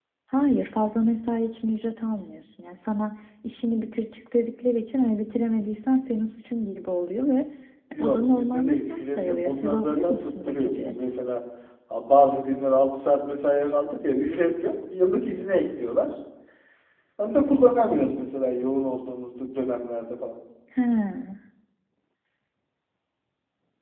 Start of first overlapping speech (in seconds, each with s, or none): 8.0 s